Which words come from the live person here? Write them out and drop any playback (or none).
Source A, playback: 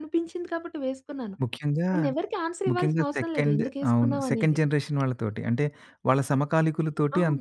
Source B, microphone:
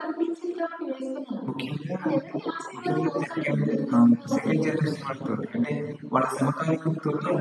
హ్మ్.